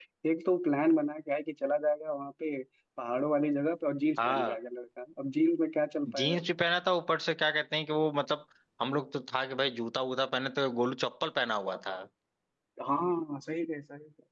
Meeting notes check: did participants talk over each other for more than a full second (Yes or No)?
No